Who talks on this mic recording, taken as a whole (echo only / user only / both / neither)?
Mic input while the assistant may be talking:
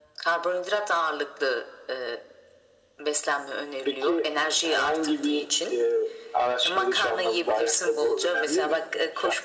echo only